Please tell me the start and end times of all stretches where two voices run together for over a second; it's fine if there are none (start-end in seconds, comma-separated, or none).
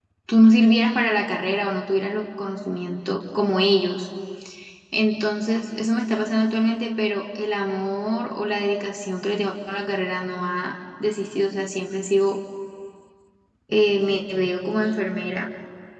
none